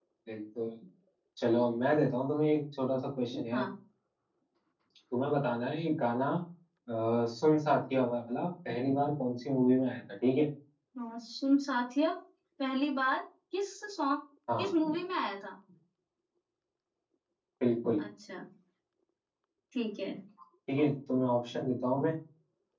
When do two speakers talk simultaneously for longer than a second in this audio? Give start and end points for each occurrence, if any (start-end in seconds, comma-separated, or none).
none